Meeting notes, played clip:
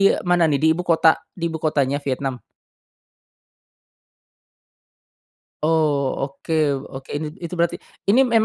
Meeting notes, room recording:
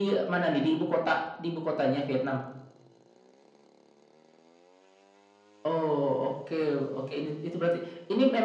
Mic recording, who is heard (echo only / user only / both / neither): echo only